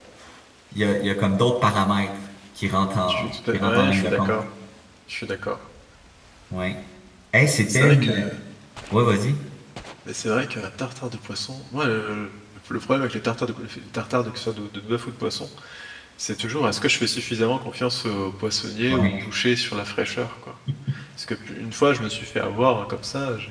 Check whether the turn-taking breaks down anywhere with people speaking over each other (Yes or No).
Yes